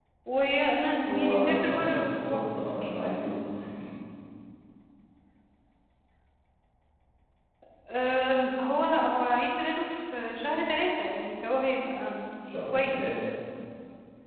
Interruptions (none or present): present